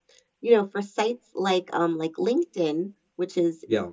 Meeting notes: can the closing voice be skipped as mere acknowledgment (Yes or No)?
Yes